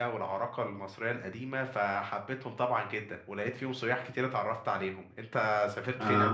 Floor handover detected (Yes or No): Yes